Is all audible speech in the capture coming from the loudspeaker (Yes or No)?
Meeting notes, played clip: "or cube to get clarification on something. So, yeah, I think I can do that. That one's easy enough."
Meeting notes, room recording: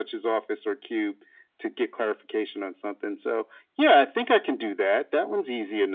Yes